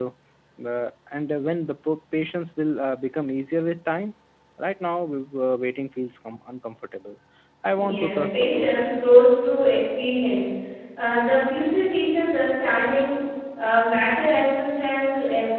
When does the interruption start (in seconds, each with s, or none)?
7.7 s